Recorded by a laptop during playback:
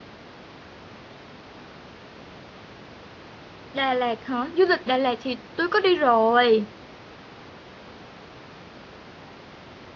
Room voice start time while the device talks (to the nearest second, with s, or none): 4 s